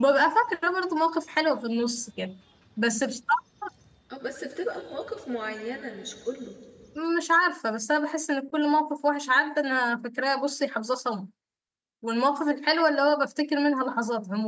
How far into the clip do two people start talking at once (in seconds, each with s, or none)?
none